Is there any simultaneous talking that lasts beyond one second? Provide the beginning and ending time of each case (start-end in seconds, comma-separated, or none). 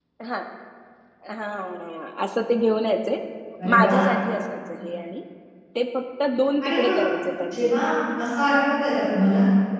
none